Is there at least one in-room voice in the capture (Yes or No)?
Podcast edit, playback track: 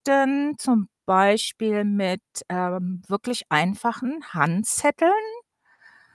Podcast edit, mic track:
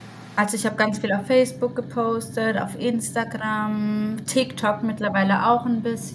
Yes